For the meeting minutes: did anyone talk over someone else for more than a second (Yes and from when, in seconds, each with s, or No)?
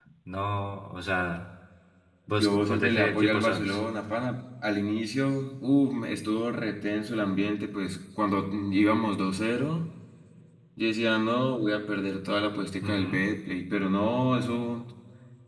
Yes, from 2.4 s